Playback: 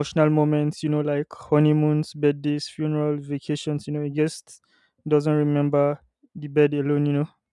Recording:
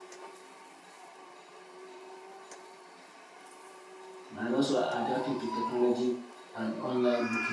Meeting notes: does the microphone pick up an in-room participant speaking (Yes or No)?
Yes